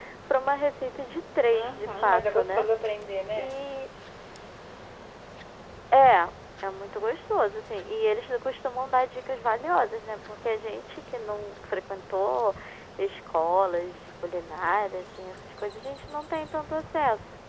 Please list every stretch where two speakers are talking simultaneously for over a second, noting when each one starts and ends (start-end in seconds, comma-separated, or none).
1.4-2.6